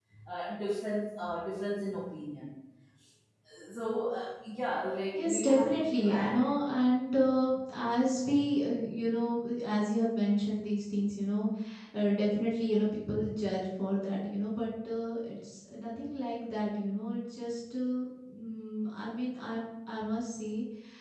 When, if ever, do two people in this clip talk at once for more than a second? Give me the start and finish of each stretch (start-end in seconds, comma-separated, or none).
5.1-6.3